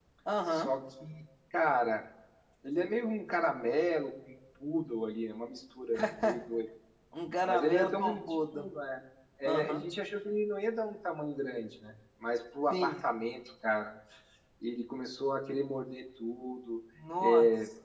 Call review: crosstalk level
present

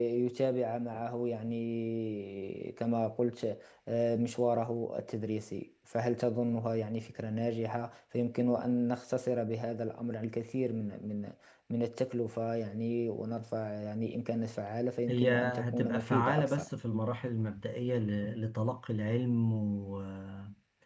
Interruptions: present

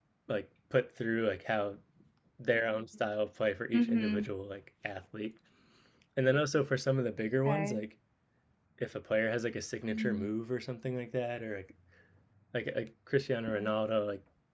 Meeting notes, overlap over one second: none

